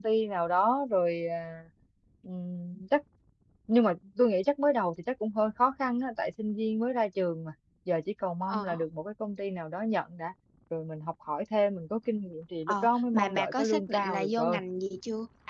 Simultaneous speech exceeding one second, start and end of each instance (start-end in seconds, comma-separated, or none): 12.7-14.6